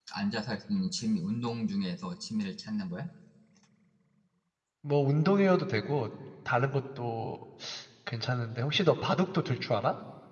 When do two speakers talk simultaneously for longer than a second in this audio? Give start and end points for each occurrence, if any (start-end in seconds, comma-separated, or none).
none